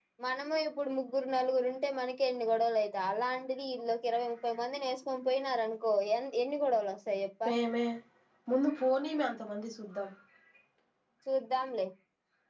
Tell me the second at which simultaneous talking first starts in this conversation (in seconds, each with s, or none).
none